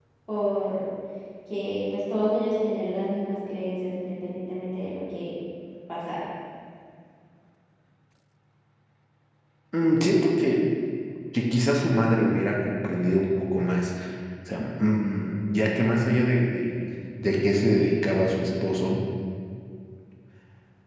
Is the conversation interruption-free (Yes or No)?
Yes